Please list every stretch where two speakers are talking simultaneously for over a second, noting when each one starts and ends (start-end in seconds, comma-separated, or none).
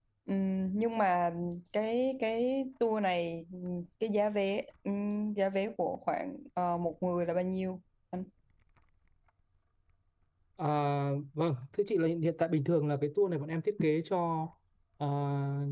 none